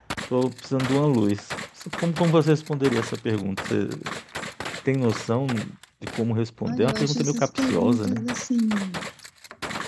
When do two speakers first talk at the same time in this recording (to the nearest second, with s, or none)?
7 s